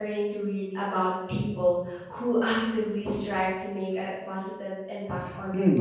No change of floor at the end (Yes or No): No